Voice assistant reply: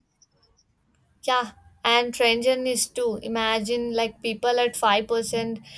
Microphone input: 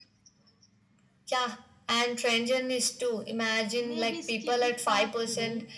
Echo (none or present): present